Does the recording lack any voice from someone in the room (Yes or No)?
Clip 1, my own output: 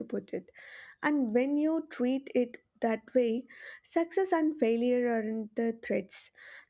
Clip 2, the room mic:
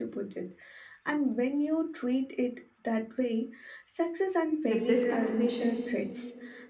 No